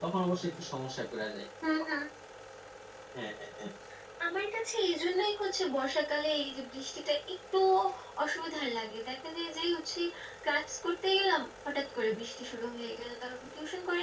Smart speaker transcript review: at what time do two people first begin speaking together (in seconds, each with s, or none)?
none